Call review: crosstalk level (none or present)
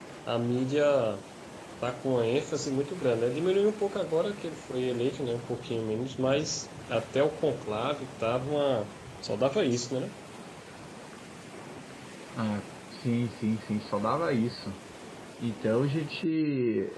none